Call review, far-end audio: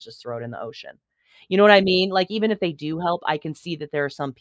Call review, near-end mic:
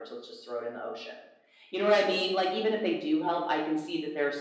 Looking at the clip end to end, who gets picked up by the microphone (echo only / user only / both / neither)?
echo only